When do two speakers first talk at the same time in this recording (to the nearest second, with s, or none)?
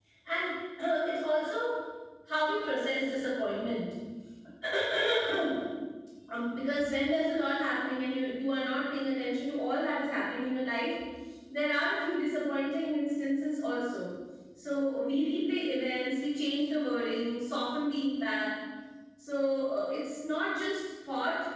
none